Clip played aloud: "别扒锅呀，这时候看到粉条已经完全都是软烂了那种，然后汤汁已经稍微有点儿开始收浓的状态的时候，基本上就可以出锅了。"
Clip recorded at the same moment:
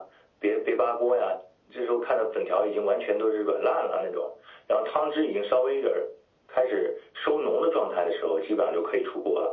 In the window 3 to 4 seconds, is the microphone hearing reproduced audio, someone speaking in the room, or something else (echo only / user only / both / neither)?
echo only